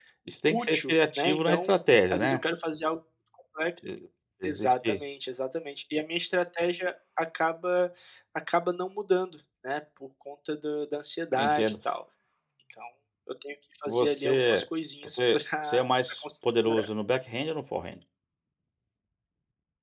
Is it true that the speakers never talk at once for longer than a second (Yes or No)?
No